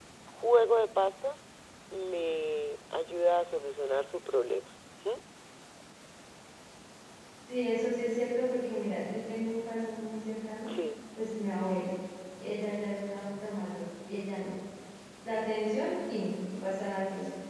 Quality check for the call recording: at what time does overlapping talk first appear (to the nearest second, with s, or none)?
none